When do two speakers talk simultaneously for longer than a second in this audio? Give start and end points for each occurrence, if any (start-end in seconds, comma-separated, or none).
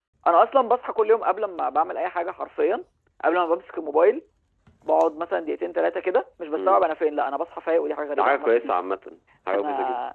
none